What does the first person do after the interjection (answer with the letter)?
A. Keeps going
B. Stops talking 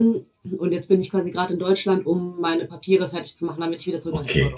B